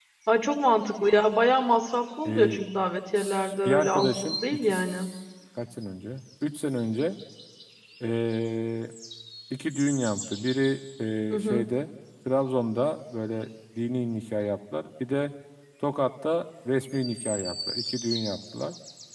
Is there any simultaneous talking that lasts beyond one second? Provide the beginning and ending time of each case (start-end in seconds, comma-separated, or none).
3.1-5.1